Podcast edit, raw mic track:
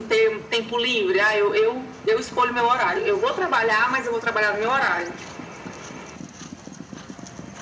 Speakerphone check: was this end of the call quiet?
Yes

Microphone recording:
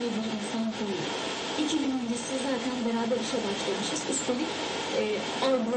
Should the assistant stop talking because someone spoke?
No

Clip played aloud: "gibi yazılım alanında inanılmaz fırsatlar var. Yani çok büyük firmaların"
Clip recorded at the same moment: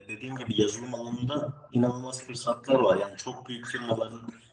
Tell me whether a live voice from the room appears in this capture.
No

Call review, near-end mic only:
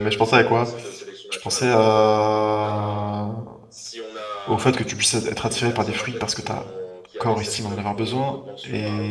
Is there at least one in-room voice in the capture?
Yes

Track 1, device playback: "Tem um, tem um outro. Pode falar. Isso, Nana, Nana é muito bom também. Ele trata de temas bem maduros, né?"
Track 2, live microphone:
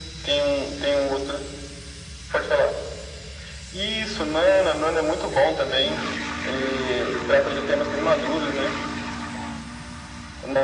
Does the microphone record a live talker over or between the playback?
No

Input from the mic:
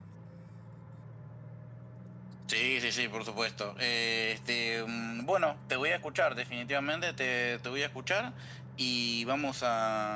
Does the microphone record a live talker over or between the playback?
No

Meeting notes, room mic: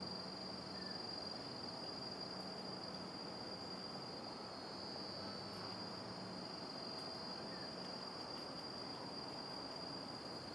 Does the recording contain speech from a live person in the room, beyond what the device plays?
No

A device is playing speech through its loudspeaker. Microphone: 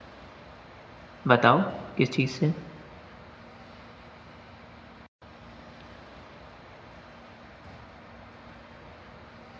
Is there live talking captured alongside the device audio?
Yes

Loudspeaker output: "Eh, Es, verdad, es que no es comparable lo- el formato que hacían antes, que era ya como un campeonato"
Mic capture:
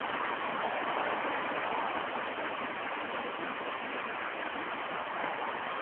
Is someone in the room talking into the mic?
No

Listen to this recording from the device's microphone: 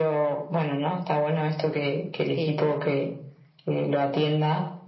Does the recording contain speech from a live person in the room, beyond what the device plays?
Yes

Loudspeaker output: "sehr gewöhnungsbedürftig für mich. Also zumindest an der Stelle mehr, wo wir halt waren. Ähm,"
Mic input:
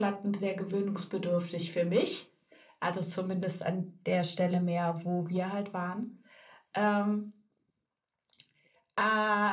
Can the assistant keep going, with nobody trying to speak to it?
Yes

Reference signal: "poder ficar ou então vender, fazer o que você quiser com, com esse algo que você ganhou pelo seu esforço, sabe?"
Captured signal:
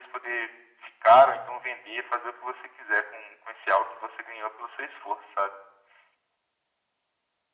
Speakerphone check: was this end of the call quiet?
Yes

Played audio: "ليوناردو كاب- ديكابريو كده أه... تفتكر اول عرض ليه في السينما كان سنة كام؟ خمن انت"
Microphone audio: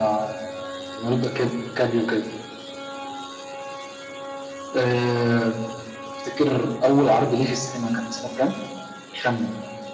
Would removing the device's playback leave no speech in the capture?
Yes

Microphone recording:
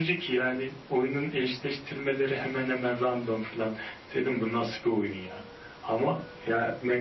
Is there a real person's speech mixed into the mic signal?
No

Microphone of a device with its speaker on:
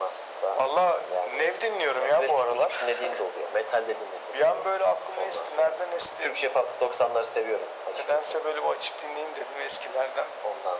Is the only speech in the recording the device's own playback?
Yes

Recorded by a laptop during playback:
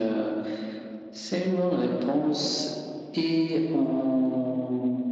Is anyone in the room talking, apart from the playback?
No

